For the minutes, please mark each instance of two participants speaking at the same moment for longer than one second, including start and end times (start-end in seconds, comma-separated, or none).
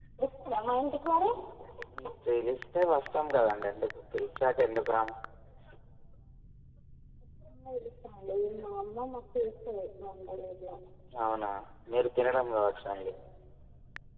none